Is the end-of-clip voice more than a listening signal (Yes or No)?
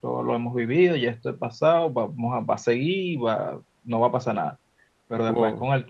No